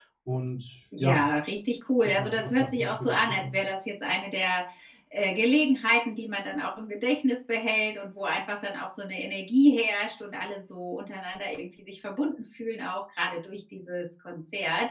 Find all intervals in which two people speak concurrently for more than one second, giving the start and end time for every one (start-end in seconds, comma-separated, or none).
2.2-3.6